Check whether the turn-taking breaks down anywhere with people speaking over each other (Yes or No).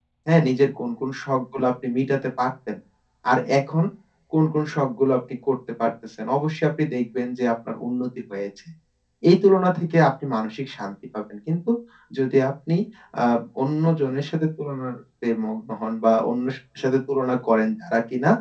No